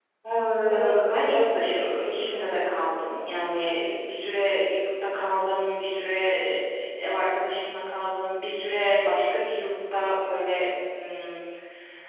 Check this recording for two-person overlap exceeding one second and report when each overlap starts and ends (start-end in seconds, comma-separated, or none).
0.7-2.9